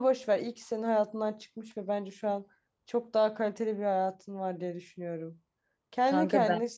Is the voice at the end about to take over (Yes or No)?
No